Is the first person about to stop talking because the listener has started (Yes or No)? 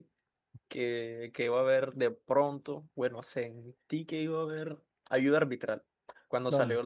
No